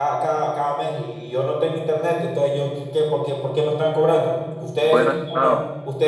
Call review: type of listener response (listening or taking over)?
listening